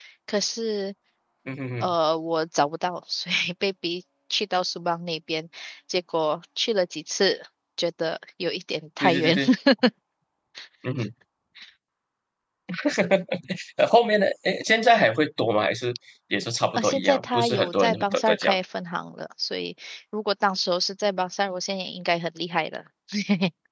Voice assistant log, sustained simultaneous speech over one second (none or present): present